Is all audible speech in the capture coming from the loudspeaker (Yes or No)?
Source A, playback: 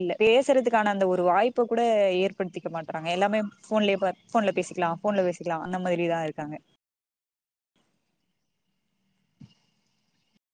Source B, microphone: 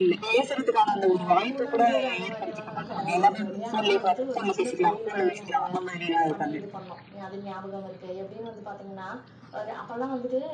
No